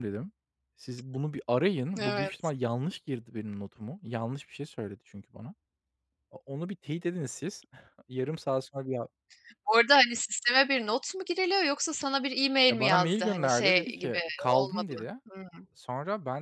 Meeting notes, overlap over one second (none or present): present